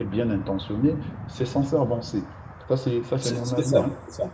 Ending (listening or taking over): taking over